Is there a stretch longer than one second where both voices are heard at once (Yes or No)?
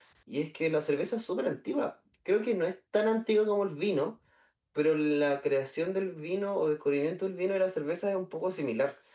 No